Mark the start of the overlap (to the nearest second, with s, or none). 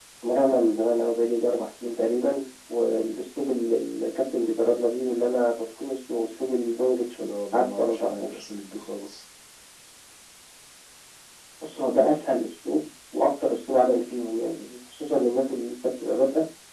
7 s